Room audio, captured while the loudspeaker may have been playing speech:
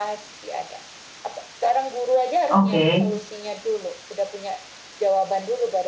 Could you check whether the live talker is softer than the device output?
No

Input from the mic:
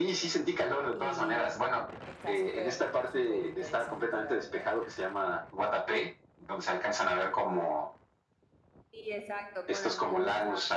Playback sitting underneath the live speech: No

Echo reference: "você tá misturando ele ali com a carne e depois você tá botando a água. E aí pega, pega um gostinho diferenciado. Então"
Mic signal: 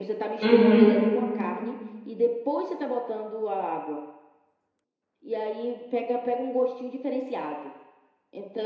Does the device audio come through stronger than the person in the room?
No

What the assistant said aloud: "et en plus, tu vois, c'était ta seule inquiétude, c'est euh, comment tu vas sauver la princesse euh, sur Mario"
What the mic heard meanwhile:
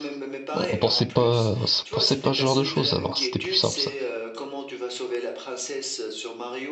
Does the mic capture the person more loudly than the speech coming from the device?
Yes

